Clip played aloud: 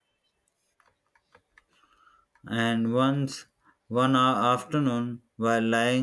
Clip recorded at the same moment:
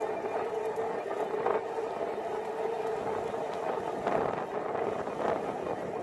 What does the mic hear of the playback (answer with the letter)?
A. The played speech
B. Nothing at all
B